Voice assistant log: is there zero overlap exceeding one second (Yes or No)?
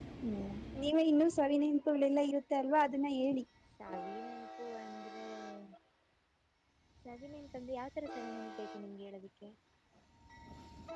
Yes